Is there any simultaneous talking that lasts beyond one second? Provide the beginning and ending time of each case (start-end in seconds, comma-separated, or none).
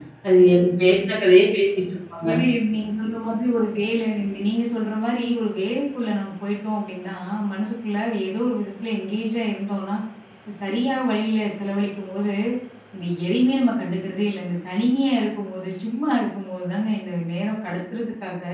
none